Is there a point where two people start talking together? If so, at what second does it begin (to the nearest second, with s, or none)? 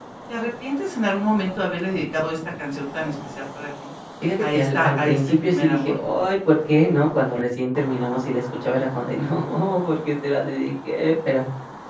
4 s